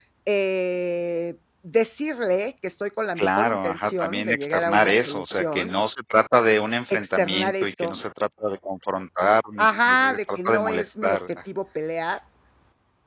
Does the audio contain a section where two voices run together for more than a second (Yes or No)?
Yes